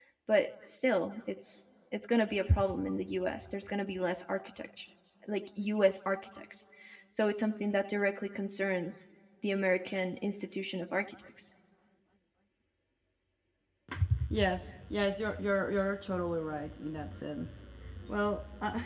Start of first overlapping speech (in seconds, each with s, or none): none